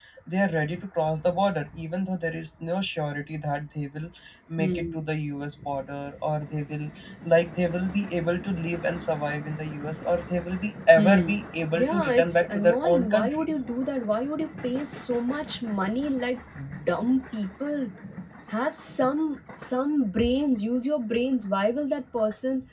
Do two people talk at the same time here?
Yes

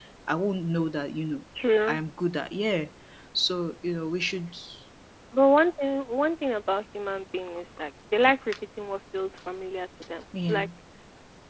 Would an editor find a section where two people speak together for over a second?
No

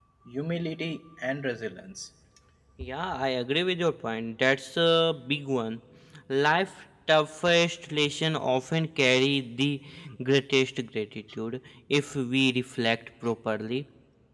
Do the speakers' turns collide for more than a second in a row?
No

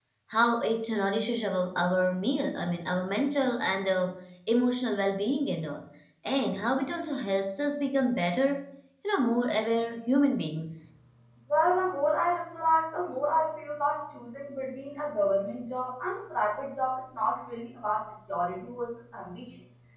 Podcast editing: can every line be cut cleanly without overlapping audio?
Yes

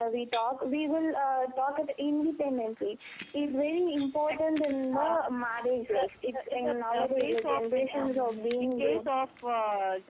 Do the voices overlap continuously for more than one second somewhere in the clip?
Yes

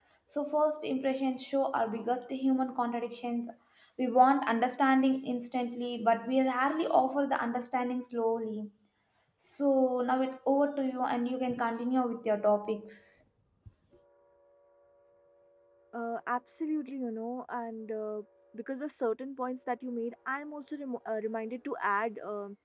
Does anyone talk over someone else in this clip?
No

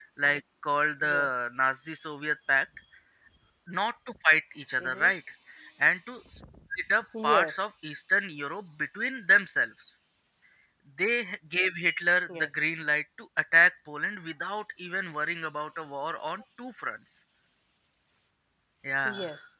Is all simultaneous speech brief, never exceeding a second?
Yes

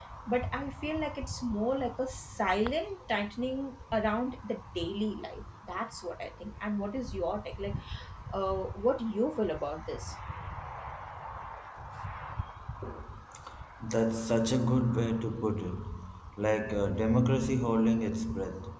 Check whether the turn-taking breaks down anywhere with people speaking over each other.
No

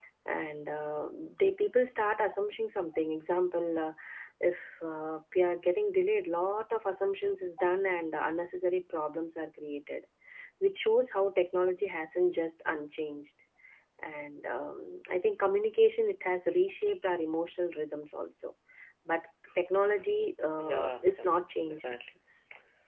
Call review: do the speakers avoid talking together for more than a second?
No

